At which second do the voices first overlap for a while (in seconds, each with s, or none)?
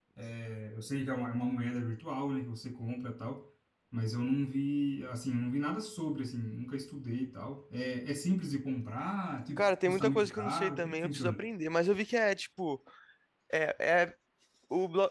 9.6 s